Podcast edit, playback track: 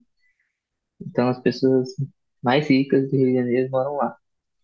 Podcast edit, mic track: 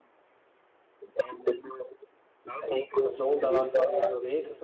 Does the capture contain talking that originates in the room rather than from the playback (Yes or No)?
Yes